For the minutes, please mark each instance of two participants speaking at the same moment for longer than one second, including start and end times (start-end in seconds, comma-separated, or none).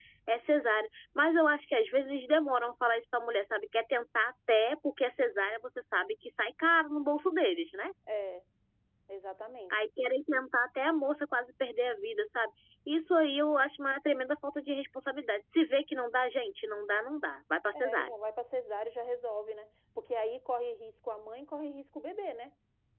none